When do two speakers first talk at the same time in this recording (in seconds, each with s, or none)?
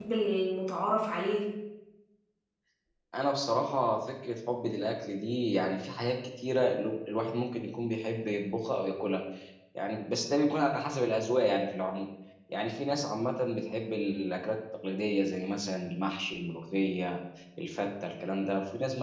none